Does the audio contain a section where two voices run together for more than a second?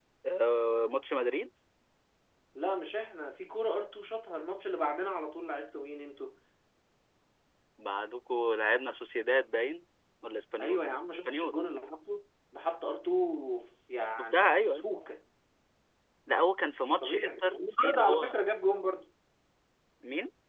Yes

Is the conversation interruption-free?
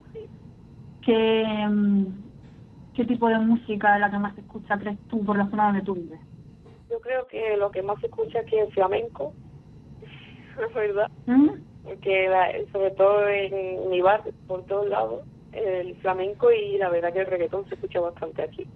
Yes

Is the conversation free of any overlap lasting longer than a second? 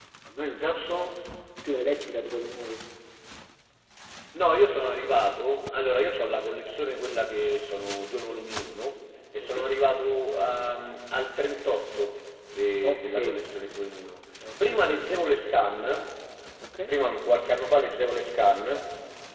Yes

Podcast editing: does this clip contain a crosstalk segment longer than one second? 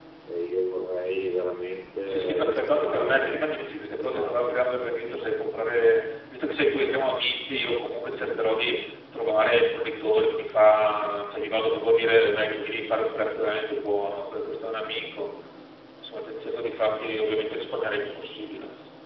Yes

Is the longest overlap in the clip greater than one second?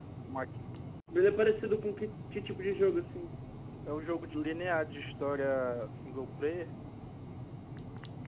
No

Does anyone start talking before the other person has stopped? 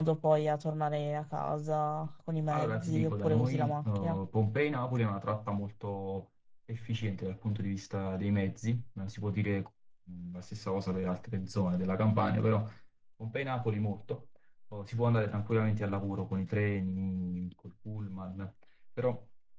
Yes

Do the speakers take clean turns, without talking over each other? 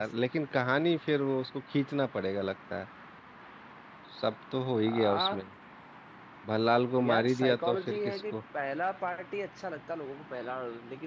No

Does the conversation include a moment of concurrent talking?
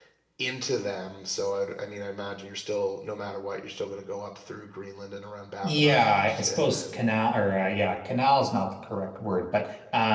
Yes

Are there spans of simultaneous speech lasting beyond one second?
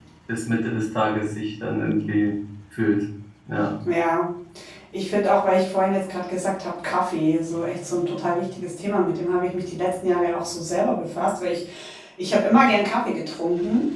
No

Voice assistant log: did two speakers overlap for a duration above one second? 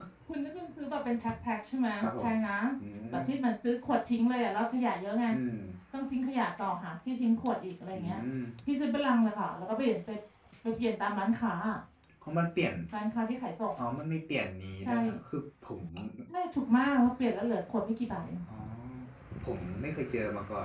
No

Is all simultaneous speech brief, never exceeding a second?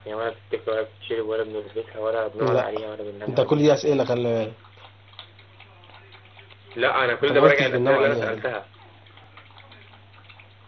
No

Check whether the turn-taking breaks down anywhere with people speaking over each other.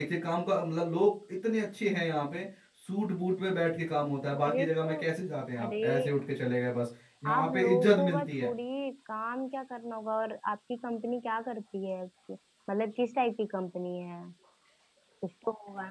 Yes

